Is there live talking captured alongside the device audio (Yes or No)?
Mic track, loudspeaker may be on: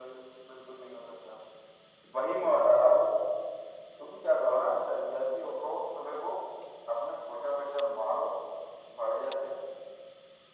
No